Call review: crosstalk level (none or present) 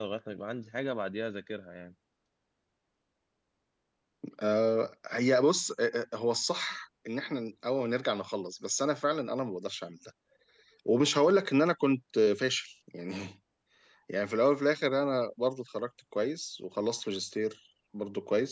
none